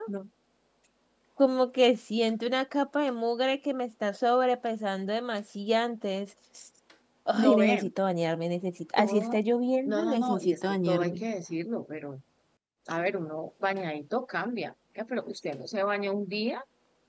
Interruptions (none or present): present